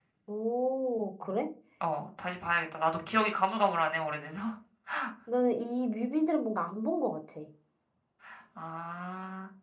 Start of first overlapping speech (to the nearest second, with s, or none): none